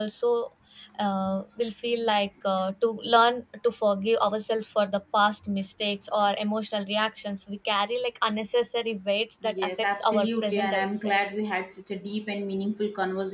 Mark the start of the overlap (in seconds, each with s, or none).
9.4 s